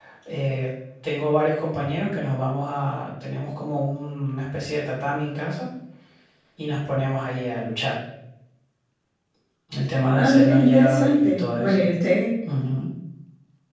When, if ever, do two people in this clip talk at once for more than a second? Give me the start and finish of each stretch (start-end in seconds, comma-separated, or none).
10.2-11.8